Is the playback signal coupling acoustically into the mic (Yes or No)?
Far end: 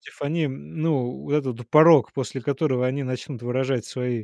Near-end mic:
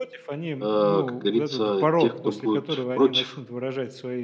Yes